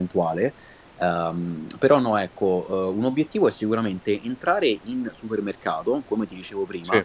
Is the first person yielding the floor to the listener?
No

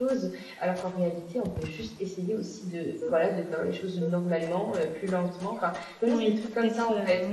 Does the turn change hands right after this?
Yes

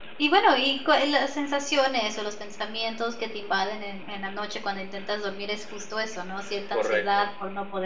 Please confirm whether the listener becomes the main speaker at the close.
No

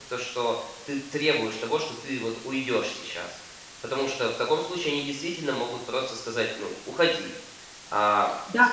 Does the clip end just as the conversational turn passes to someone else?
Yes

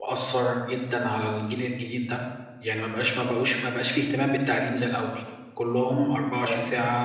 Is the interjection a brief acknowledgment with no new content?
Yes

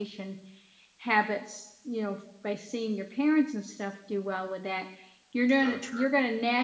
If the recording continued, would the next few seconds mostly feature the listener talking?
No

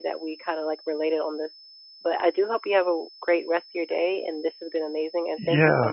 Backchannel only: No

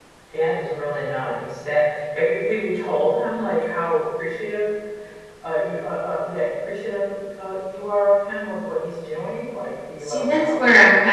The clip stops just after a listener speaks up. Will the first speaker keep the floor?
No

